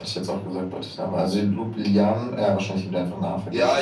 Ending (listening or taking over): taking over